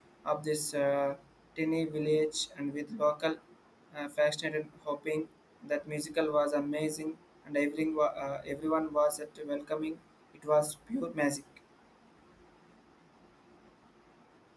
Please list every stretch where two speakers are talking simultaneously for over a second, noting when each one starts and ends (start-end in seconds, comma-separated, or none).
none